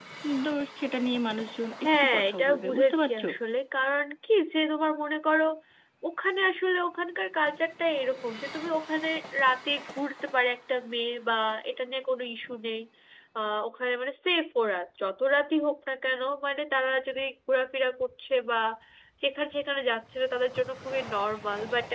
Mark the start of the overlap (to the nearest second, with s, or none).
2 s